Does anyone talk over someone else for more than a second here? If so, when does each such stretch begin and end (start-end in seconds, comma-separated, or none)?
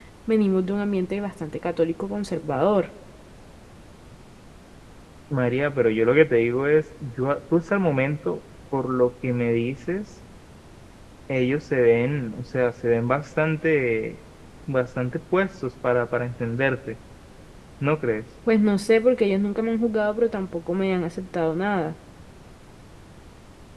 none